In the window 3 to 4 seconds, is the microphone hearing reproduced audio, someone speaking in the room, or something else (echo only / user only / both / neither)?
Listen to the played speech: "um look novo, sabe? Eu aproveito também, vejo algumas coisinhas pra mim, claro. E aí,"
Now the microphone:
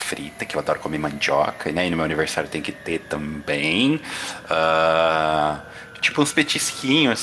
user only